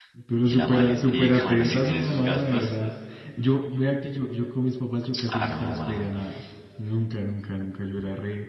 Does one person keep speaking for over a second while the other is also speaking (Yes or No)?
Yes